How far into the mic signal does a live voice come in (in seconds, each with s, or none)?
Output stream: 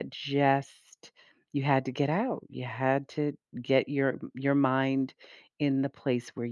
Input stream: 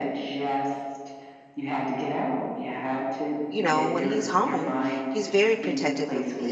3.5 s